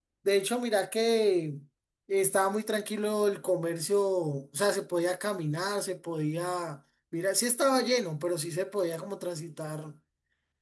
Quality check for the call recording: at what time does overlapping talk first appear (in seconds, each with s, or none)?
none